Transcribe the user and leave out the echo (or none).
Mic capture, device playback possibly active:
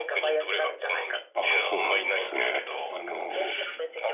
あ、そうなんですね。あの、